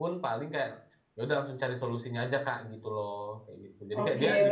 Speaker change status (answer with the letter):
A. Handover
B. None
A